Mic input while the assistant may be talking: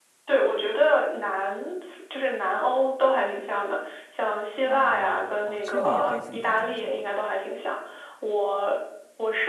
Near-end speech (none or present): present